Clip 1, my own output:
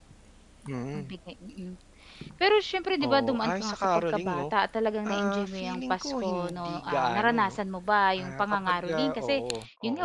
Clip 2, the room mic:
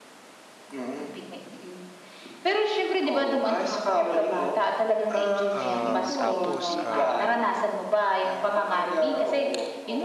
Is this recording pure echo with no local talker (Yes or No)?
No